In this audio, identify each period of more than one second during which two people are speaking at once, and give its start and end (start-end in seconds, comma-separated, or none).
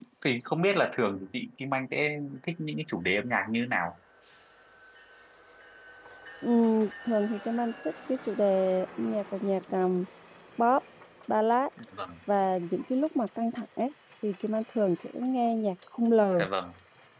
none